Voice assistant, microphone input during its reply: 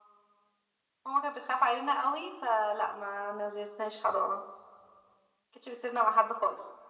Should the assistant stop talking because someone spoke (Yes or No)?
No